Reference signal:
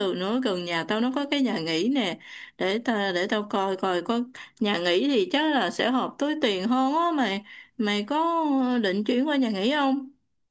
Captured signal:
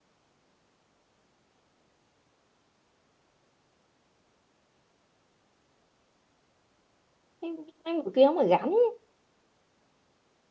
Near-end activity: present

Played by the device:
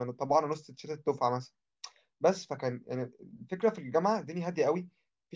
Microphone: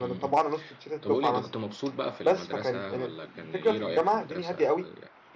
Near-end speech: present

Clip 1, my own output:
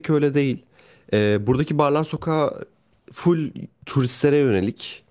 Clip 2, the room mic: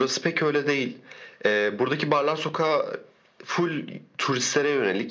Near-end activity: none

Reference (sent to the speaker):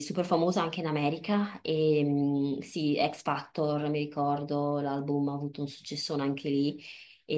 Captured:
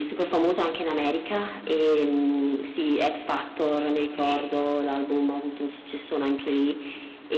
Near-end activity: present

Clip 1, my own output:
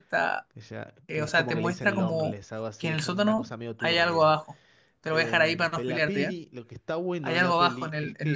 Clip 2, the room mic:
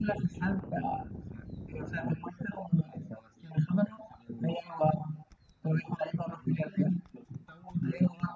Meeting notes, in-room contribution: none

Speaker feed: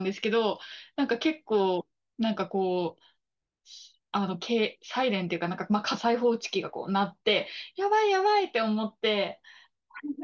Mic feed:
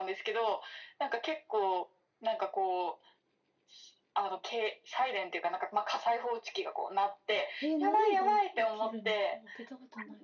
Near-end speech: present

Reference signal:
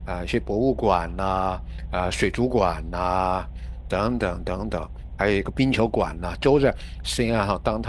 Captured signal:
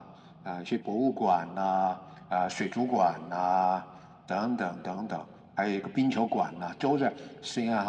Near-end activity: none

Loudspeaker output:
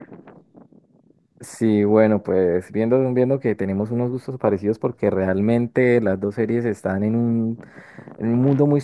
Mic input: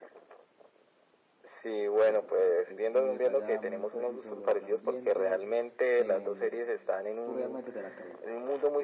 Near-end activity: present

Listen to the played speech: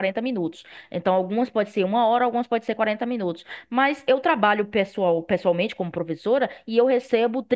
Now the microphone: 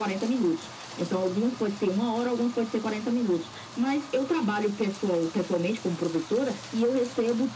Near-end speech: none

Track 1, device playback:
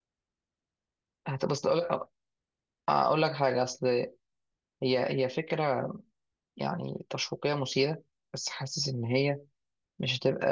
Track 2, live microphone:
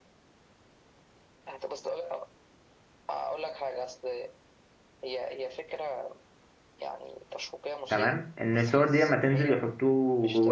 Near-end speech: present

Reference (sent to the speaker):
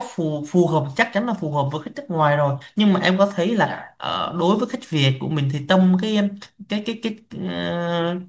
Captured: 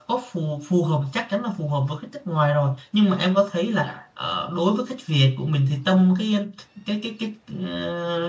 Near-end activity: none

